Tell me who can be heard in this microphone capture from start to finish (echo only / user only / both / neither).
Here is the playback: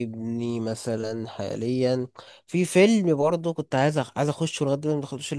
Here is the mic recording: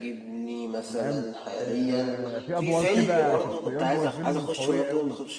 both